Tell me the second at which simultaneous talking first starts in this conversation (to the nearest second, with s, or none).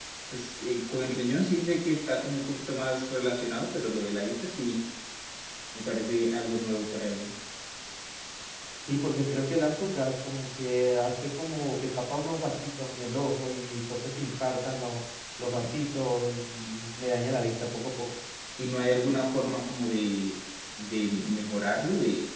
none